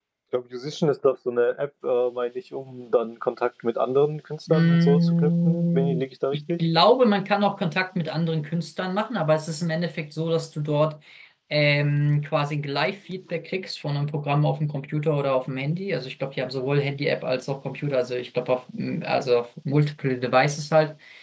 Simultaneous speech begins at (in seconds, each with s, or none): 4.5 s